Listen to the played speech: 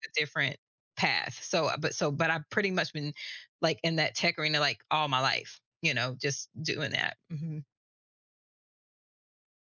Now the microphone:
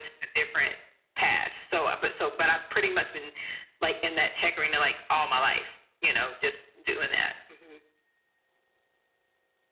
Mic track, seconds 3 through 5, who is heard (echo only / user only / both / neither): echo only